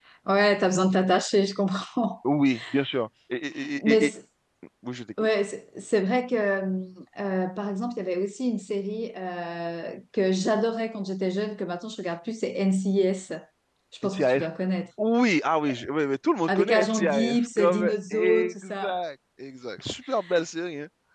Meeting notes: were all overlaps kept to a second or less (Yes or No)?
No